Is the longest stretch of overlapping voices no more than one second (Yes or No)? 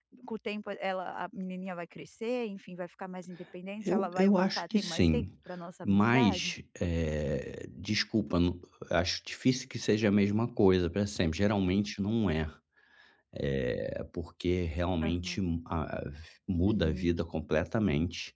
No